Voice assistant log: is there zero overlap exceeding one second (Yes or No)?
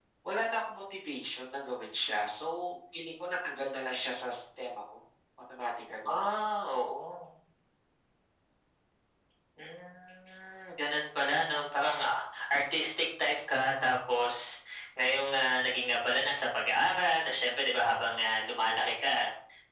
Yes